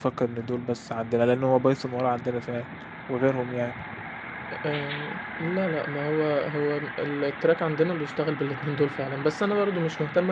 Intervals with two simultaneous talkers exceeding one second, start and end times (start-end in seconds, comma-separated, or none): none